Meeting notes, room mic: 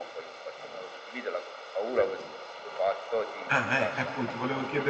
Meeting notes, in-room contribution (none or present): present